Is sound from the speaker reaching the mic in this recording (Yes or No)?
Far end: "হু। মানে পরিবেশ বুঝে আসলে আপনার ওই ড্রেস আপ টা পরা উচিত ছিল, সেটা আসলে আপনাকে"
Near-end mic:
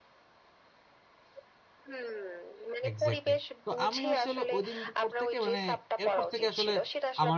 Yes